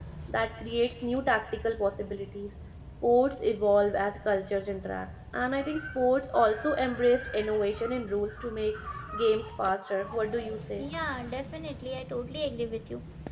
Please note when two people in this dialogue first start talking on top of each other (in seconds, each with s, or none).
none